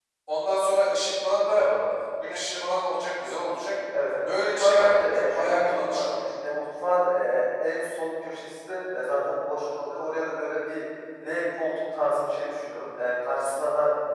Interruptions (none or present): present